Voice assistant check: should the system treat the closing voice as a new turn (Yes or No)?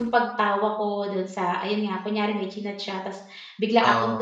No